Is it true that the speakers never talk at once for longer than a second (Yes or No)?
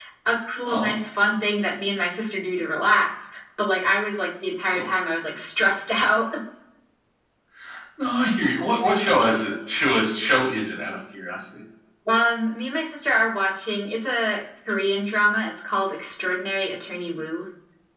Yes